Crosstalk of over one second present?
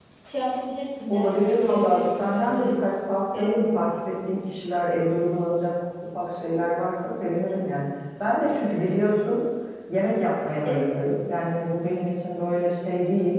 Yes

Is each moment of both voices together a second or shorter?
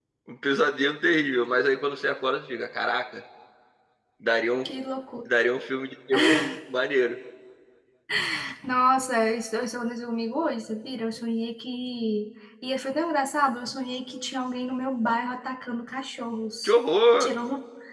Yes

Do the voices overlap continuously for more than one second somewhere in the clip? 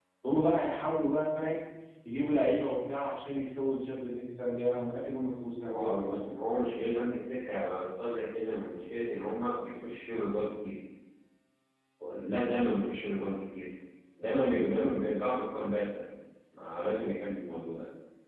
No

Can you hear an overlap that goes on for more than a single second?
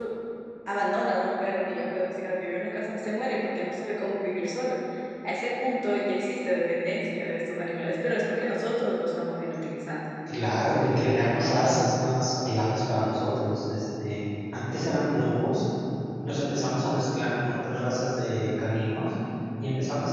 No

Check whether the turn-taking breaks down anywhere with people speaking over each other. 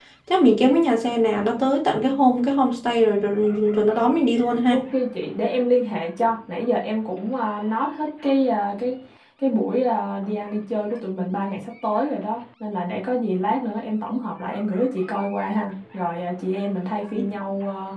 No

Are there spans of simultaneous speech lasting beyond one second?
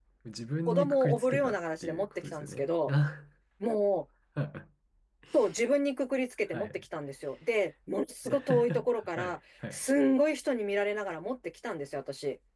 Yes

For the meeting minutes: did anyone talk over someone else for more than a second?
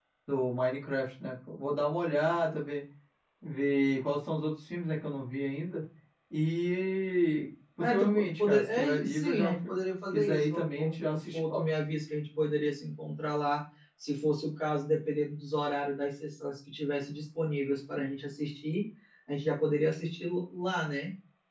Yes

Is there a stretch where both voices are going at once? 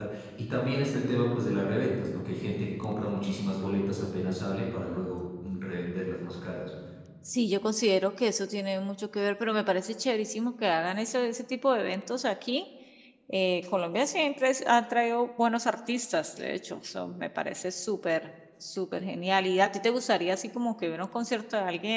No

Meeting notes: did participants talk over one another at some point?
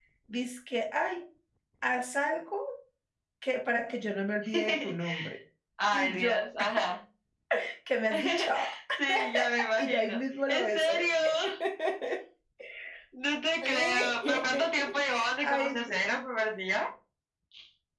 Yes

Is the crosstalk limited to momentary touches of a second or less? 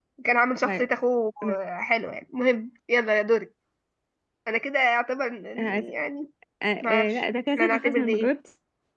No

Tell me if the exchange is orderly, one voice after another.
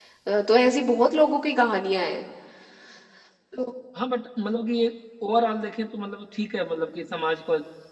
Yes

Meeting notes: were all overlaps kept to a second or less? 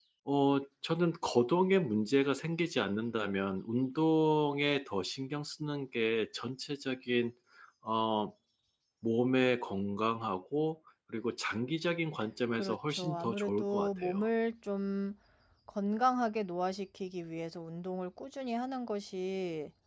No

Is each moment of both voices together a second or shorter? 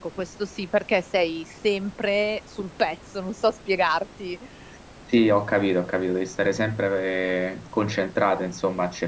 Yes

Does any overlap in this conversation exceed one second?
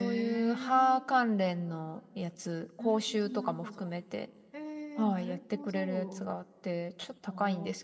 Yes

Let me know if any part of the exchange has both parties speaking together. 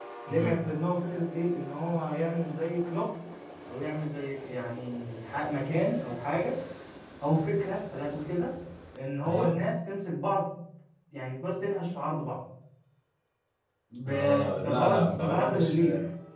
Yes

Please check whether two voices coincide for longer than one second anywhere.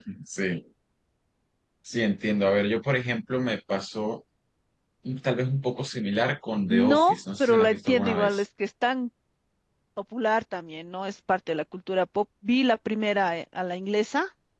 Yes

